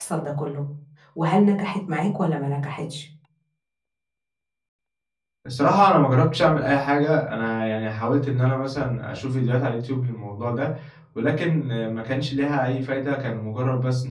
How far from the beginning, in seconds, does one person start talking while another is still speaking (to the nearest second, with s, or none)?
none